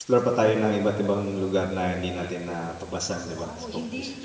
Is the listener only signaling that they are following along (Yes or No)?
No